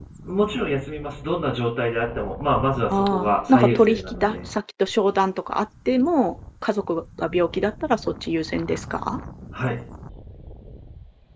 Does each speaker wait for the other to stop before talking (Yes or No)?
No